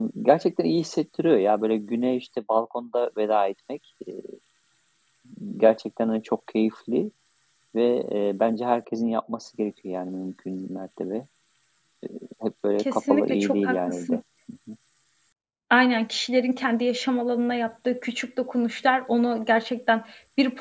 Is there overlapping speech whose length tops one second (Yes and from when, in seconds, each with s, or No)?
Yes, from 12.8 s